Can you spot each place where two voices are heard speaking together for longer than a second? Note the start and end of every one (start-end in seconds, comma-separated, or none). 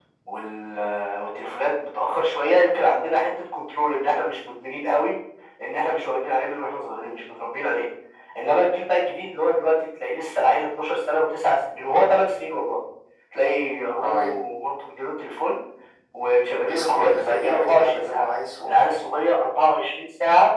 16.6-18.3